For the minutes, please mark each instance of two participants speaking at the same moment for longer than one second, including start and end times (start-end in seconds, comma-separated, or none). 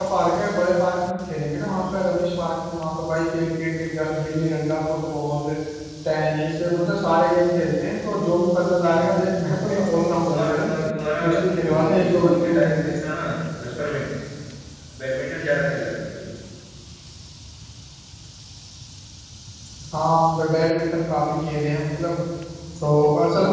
11.2-12.9